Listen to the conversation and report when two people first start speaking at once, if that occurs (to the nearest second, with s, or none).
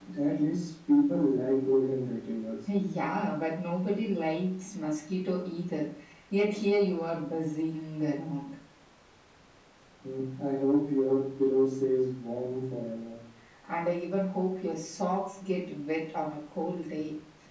none